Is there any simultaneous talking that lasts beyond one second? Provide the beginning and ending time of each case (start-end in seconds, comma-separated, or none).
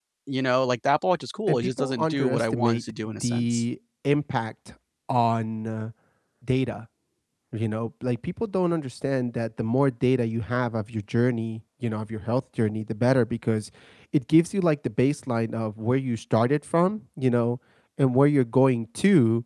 1.5-3.6